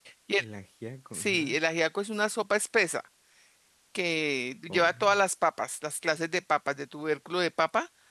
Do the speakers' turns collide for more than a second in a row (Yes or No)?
No